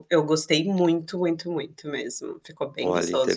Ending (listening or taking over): taking over